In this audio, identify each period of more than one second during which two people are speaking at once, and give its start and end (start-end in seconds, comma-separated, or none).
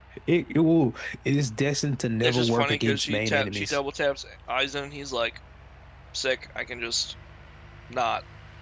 2.2-3.8